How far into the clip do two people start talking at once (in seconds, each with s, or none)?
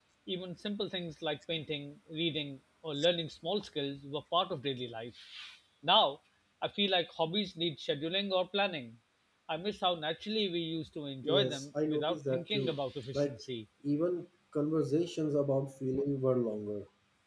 11.2 s